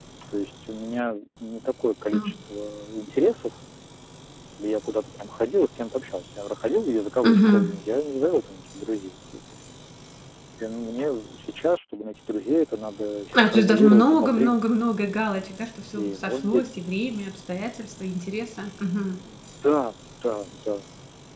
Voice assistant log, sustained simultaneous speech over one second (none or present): present